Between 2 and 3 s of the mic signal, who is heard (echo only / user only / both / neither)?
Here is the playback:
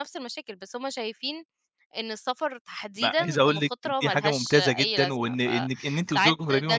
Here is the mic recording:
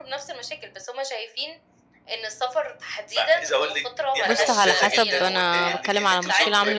echo only